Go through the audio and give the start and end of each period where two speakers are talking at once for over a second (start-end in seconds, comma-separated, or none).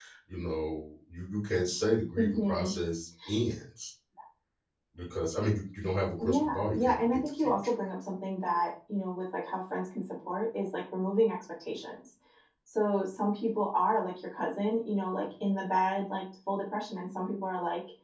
6.2-7.5